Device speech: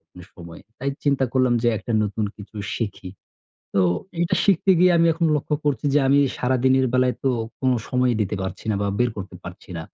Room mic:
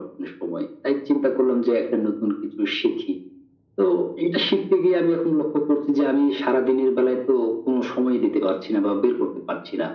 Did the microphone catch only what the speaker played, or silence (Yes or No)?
Yes